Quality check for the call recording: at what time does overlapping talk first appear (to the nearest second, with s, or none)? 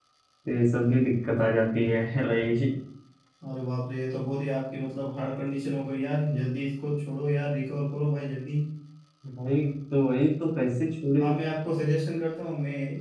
none